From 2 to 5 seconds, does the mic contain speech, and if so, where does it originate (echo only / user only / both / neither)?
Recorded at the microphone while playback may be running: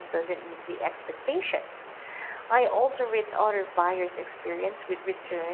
user only